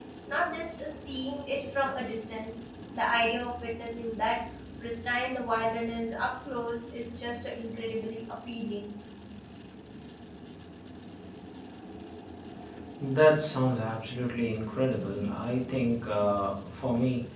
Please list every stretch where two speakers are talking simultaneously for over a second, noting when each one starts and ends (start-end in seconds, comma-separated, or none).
none